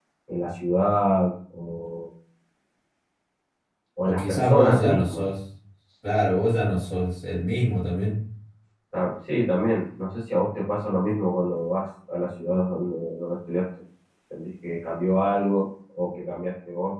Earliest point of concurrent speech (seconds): 4 s

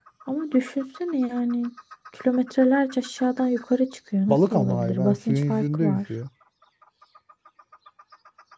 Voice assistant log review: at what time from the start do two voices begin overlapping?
4 s

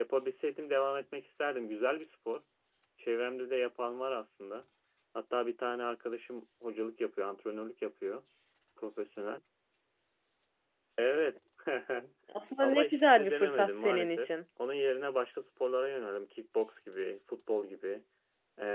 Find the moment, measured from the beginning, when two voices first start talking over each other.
13 s

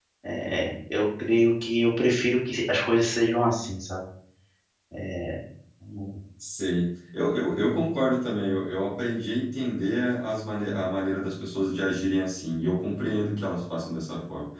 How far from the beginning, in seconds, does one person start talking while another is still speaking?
none

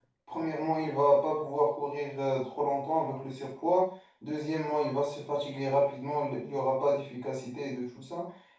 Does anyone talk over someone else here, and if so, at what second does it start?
none

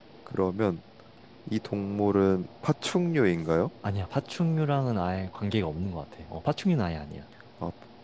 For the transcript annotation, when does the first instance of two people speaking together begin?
none

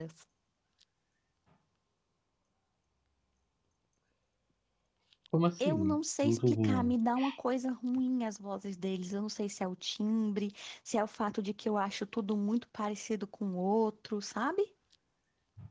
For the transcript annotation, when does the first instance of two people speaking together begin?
6 s

